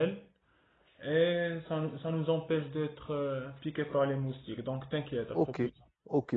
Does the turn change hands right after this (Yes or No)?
Yes